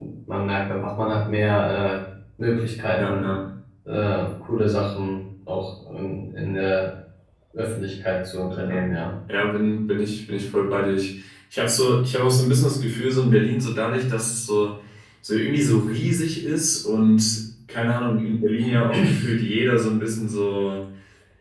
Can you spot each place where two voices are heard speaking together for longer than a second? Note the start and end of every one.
none

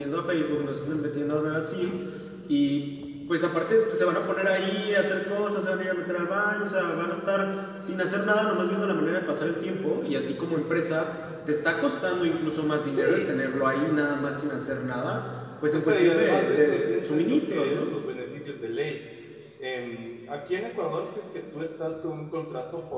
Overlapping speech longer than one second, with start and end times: 15.7-17.9

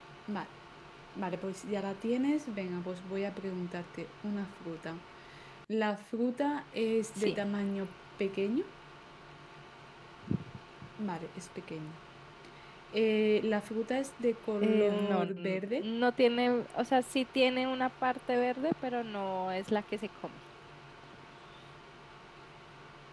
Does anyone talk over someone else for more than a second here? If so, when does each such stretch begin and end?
14.6-15.9

